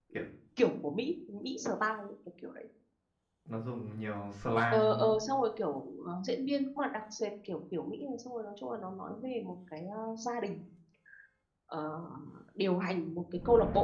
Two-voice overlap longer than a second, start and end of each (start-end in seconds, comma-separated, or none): none